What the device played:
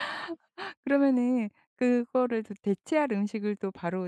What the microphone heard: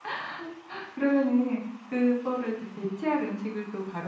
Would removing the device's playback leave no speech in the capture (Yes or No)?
Yes